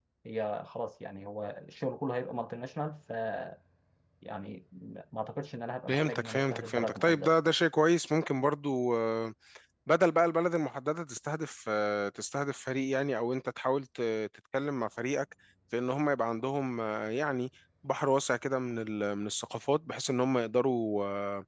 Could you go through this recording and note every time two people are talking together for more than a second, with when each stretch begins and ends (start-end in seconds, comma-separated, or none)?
5.9-7.3